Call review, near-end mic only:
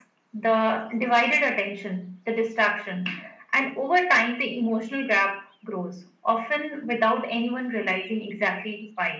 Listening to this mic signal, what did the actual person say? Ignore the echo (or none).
none